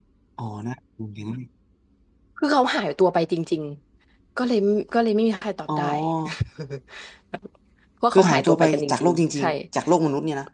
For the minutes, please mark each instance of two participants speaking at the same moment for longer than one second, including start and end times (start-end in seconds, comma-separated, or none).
8.1-9.5